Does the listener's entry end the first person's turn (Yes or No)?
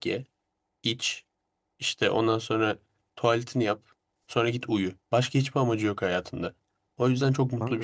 No